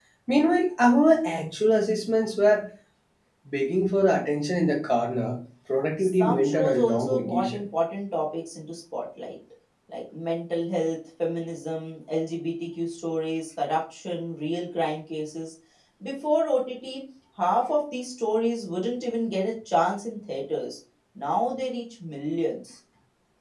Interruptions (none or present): present